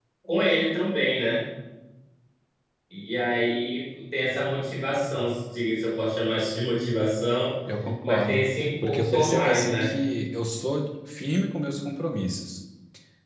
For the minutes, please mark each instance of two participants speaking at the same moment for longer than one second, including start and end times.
8.0-9.9

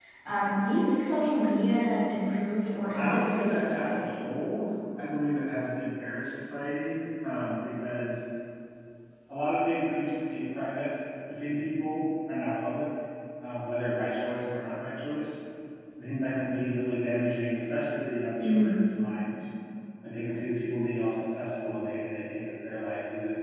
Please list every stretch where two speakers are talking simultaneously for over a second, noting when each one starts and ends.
2.9-4.2

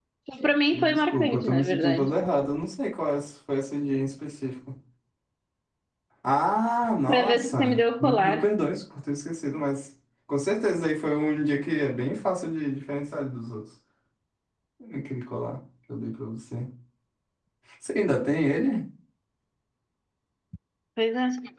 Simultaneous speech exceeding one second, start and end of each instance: 0.7-2.1, 7.1-8.5

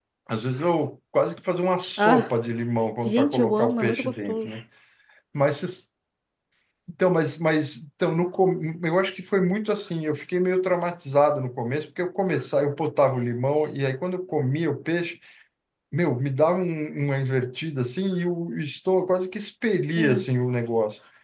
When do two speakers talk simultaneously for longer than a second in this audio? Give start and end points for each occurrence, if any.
3.0-4.5

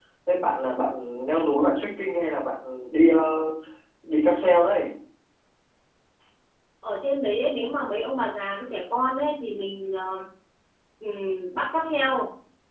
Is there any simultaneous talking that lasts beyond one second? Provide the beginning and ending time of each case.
none

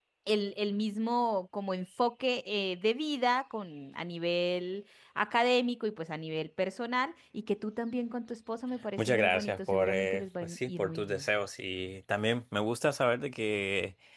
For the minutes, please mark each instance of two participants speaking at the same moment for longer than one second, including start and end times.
9.0-11.3

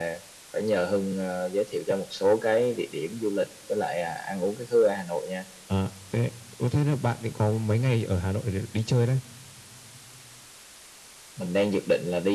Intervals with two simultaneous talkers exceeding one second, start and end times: none

